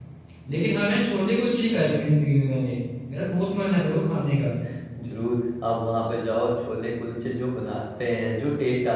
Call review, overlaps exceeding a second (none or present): none